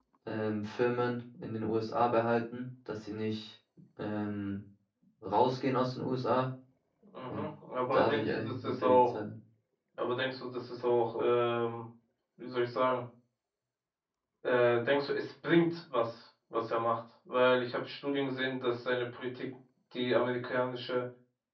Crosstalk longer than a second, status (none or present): present